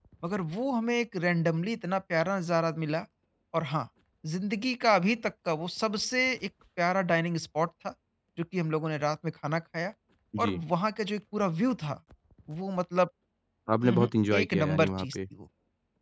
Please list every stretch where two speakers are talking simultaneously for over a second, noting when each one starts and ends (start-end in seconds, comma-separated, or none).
13.8-15.2